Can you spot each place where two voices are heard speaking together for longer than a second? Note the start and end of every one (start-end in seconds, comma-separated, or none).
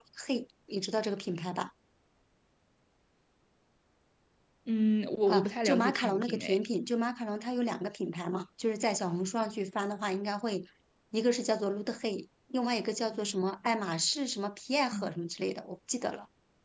5.3-6.6